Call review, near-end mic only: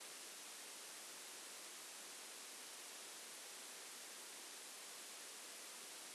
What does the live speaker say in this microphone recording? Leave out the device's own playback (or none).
none